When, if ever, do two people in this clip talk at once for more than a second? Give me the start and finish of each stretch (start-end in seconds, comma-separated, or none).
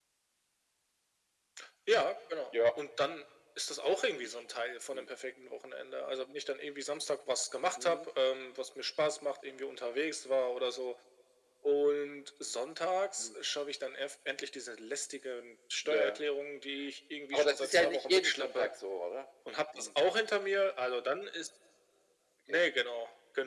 17.3-18.7